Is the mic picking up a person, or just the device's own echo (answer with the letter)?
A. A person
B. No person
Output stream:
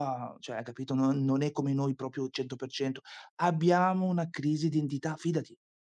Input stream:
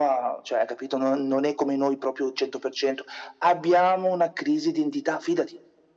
B